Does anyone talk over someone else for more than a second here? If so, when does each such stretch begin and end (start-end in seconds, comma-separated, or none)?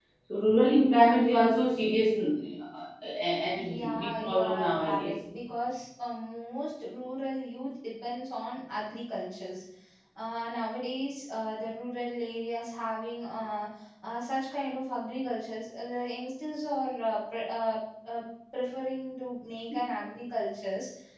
3.5-5.1